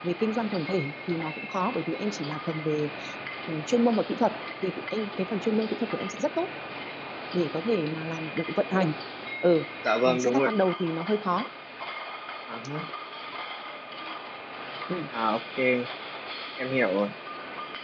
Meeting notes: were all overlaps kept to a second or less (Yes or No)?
Yes